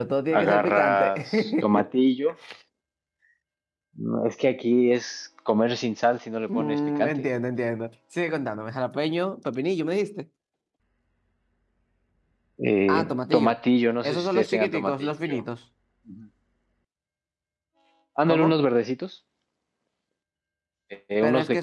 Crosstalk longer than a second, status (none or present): present